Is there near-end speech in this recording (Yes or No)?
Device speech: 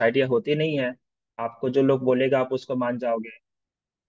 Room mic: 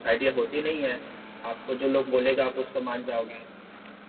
No